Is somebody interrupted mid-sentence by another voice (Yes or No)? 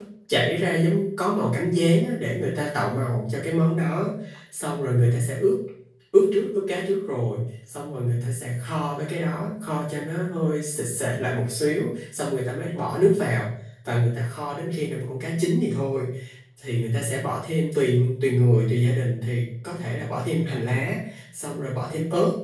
No